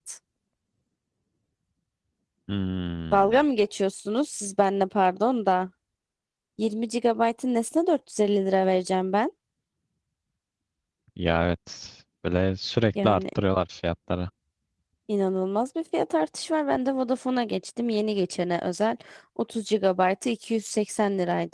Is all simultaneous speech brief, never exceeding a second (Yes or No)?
Yes